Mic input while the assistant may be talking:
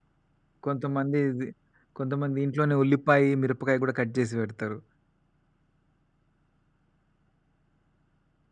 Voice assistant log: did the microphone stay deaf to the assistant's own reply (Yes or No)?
Yes